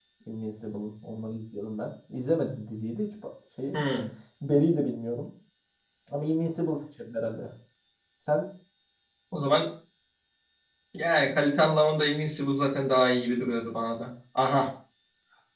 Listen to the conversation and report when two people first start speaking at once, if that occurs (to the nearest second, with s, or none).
none